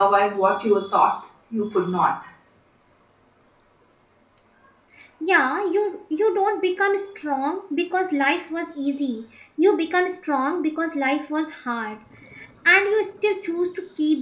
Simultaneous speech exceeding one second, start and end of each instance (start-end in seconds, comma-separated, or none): none